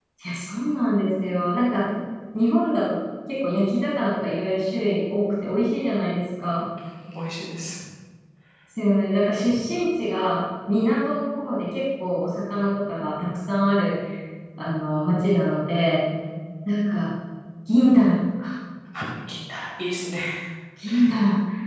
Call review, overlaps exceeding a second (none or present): none